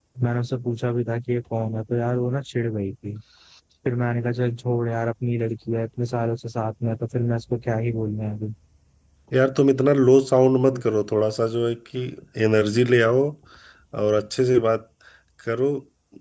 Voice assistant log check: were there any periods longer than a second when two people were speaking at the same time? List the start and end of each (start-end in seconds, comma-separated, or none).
none